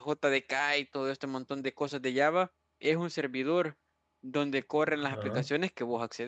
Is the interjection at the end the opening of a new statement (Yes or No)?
No